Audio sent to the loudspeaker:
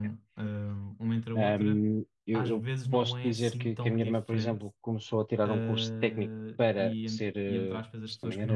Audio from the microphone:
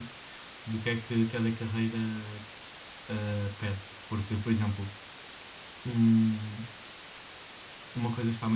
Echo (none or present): none